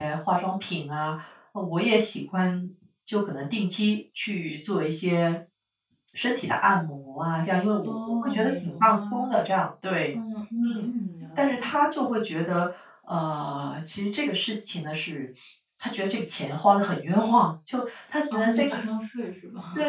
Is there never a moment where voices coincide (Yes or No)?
No